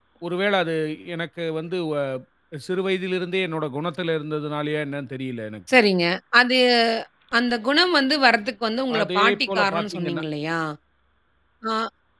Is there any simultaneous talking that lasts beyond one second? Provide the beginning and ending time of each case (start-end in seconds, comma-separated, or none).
9.0-10.2